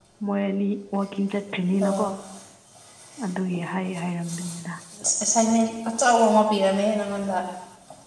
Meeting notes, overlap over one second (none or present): none